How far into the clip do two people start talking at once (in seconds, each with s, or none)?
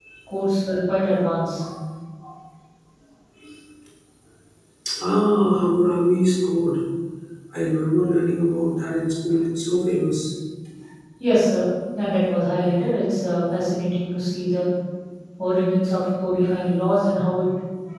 none